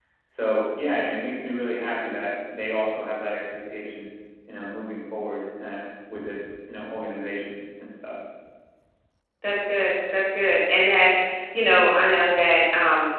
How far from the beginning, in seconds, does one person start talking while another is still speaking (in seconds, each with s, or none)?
none